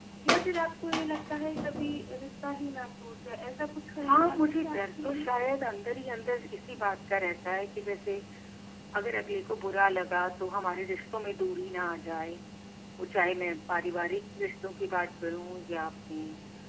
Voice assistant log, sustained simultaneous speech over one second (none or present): present